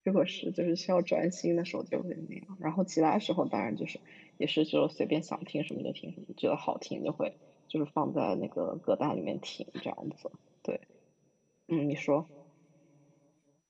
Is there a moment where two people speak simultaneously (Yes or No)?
No